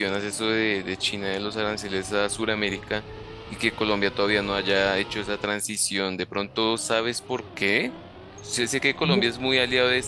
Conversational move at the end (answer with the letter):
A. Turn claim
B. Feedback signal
B